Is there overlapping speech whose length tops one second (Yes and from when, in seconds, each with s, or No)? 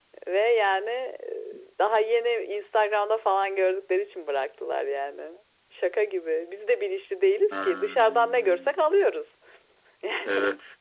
Yes, from 7.5 s